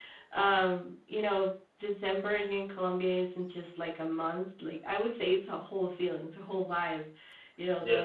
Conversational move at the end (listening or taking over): listening